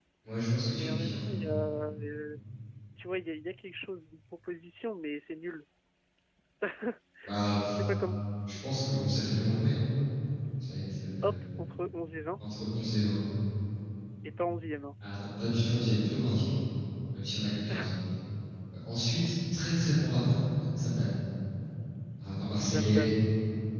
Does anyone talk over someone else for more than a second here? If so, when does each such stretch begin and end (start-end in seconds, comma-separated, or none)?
none